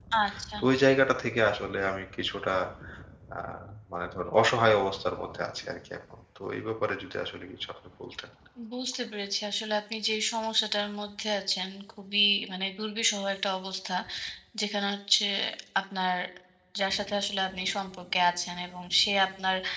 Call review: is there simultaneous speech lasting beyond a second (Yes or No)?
No